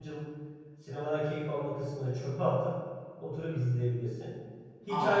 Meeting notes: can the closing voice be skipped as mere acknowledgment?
Yes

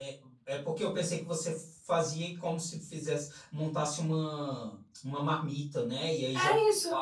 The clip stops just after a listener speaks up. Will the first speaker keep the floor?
Yes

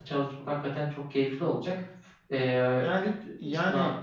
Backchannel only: No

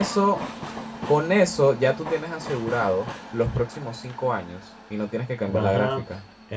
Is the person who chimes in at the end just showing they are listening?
No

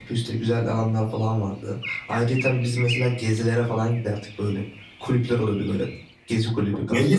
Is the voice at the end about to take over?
Yes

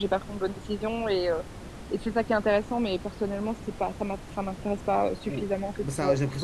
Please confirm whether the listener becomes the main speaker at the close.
Yes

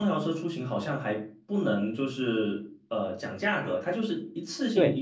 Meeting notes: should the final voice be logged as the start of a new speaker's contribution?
Yes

